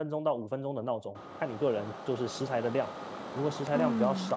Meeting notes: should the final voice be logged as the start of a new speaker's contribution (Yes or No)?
No